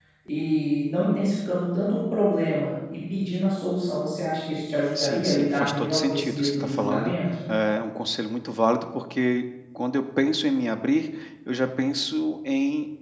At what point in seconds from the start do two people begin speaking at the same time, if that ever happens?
5.0 s

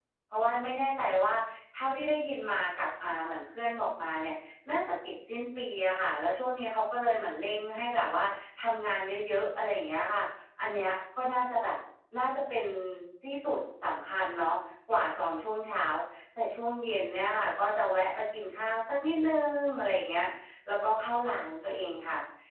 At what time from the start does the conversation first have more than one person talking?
none

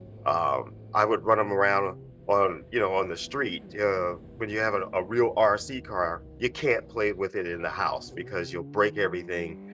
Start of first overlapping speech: none

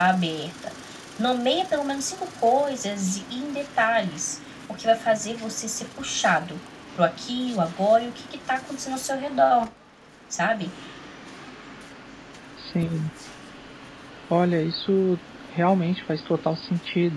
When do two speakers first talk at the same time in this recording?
none

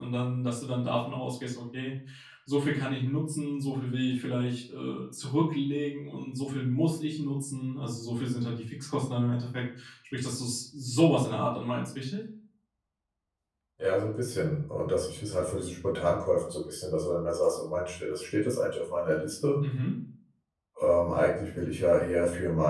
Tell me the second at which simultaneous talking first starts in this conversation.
none

